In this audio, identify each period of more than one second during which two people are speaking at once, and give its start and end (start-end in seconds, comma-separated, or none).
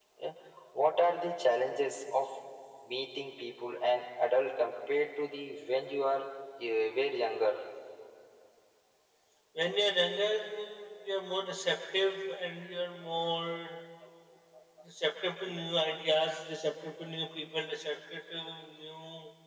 none